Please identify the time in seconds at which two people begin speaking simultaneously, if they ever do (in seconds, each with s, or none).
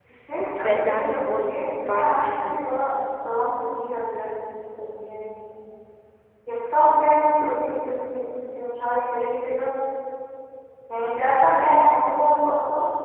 0.6 s